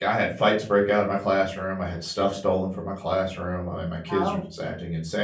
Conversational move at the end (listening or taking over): listening